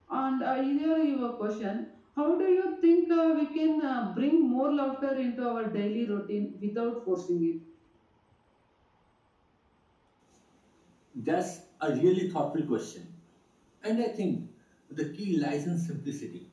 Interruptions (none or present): none